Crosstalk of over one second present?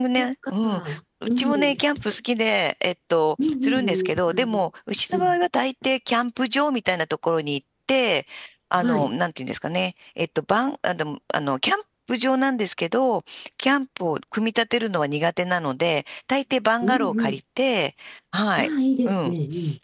Yes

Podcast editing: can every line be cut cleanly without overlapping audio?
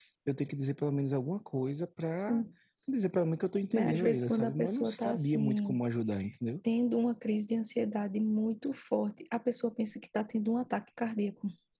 No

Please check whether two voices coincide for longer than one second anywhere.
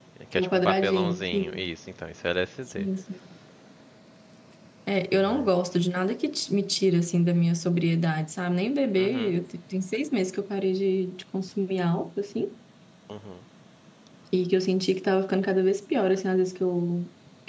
Yes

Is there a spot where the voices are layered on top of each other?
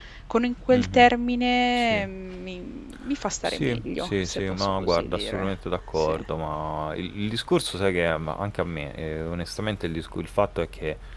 Yes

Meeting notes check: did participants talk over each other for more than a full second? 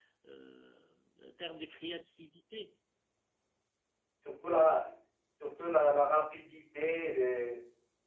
No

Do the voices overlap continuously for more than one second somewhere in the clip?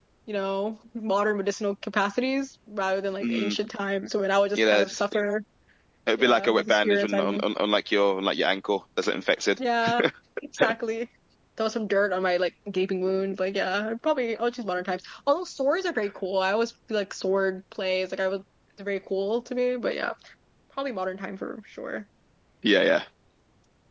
Yes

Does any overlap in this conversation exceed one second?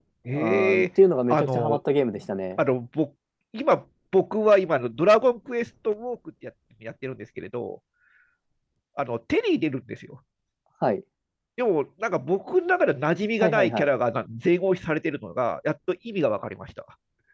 No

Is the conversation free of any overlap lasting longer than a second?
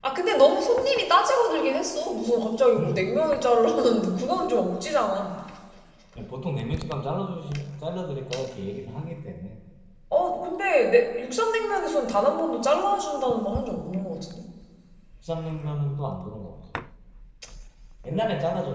Yes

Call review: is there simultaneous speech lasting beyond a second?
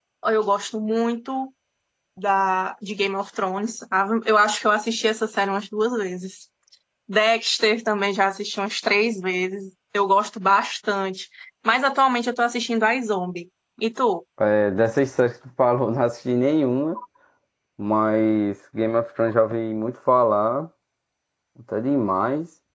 No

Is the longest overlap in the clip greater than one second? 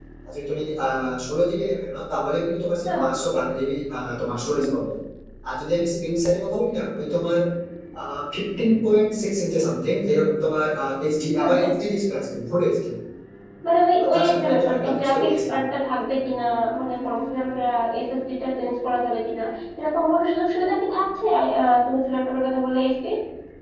Yes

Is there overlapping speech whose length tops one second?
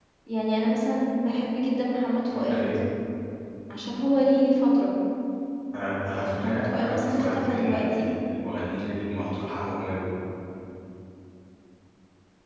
Yes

